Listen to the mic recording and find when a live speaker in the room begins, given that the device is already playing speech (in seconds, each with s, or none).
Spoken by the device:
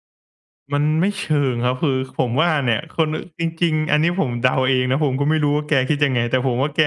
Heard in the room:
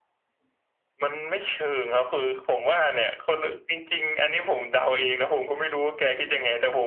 none